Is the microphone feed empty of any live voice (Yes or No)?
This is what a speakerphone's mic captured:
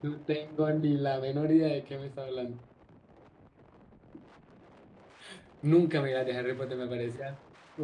No